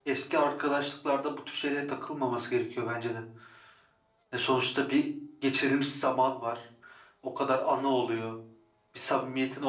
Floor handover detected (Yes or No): No